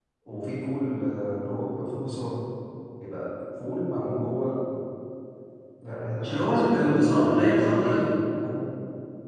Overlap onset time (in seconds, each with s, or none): 6.2 s